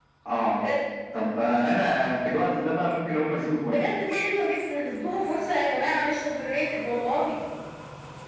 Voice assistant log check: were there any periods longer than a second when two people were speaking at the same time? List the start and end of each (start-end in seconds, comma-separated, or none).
none